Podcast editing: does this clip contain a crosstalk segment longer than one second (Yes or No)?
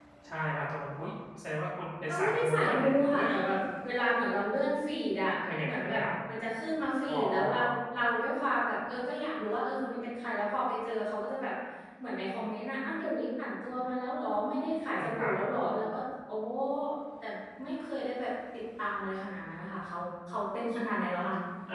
Yes